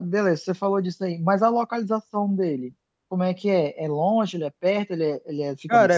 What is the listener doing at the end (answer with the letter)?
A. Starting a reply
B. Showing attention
A